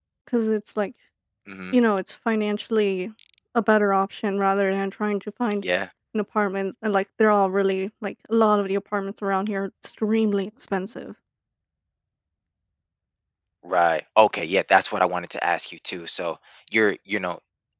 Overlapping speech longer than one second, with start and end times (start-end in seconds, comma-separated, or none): none